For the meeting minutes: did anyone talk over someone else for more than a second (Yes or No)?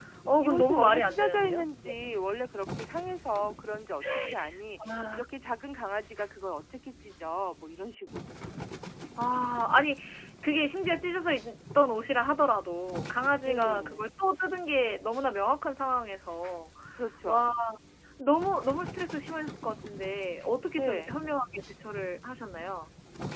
Yes